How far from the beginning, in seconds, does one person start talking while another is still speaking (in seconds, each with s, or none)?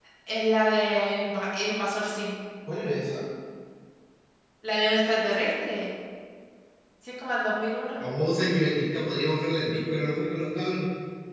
none